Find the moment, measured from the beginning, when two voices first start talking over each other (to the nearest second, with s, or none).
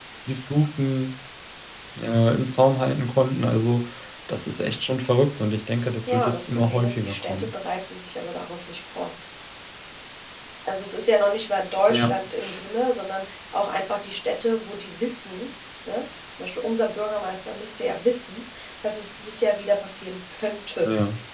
6 s